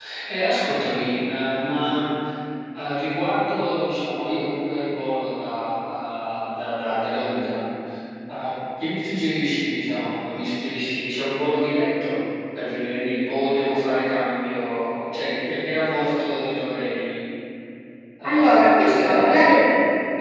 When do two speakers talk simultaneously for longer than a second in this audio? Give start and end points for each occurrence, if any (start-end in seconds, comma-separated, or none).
18.2-19.4